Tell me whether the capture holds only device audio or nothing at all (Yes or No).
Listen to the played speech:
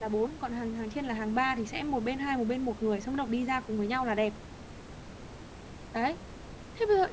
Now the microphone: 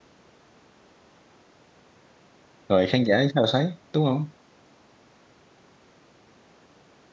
No